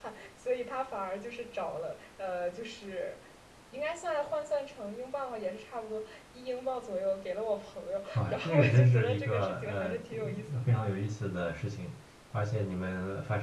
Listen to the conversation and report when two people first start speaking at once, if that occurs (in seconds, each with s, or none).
8.2 s